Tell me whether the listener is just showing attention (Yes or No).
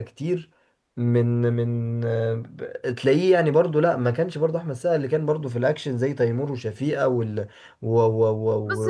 No